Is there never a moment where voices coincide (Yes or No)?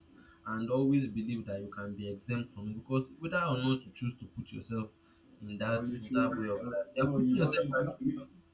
No